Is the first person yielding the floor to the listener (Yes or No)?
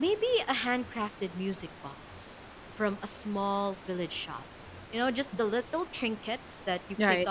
No